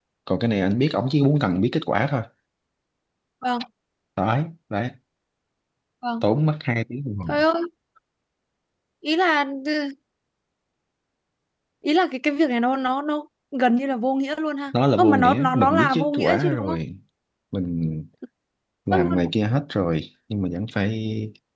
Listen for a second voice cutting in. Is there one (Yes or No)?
Yes